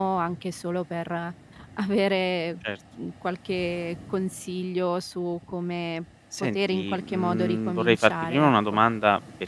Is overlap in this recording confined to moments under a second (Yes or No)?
No